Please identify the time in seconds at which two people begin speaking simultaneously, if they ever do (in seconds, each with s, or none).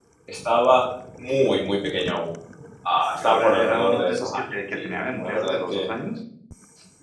3.2 s